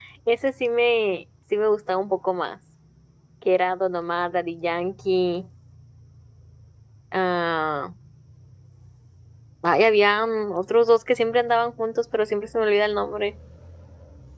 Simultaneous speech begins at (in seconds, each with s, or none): none